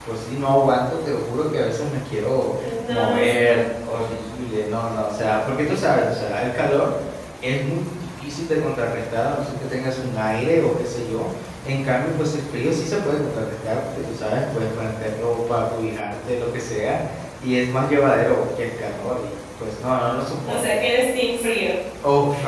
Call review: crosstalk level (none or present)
present